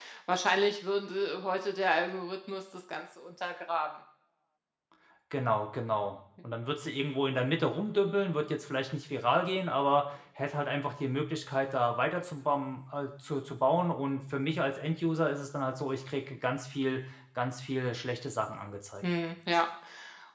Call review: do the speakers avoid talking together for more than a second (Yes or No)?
Yes